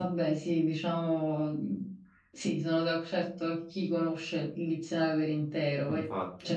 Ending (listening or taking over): listening